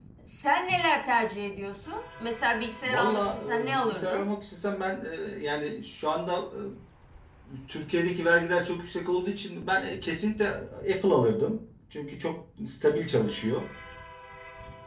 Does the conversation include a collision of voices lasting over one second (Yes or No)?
Yes